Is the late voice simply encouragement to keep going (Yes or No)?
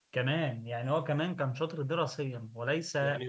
No